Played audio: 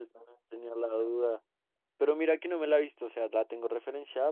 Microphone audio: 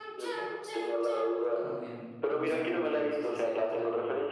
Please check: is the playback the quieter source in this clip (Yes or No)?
No